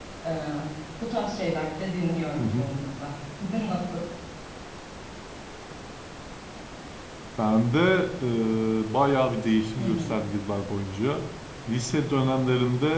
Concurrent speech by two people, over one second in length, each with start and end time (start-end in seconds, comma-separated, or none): none